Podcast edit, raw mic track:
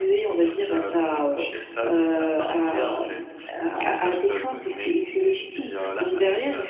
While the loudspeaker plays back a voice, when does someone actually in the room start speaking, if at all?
none

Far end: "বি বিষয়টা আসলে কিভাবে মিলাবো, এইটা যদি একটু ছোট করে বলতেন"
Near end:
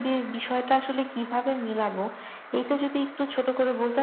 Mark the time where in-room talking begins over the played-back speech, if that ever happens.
none

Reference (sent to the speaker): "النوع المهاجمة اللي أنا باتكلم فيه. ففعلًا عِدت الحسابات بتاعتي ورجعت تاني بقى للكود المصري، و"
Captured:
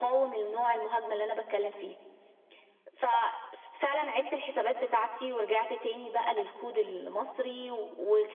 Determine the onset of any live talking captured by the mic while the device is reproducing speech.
none

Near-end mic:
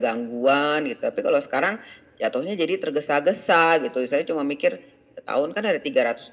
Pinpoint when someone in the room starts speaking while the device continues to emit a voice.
none

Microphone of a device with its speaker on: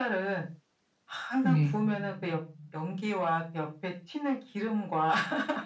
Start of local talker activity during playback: 1.4 s

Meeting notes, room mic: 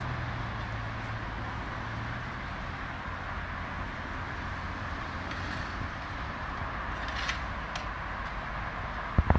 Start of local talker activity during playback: none

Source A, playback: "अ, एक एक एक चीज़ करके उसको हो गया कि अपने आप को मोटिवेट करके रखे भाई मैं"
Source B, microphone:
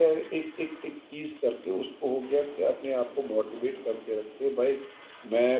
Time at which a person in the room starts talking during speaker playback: none

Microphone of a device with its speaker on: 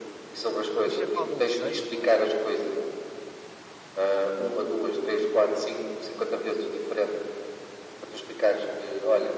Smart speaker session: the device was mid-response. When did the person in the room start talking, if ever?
0.8 s

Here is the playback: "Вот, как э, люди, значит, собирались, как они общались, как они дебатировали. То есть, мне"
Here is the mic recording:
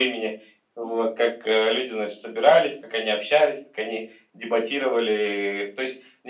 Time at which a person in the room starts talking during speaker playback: none

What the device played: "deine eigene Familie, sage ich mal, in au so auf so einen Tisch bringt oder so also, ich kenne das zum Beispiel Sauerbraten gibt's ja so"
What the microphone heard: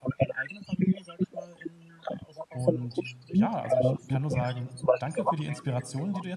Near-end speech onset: 2.5 s

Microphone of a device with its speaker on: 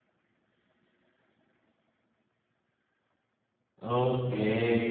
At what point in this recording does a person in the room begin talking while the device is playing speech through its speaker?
3.8 s

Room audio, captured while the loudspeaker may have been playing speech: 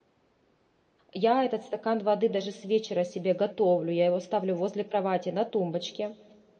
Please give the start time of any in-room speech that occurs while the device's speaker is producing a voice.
1.1 s

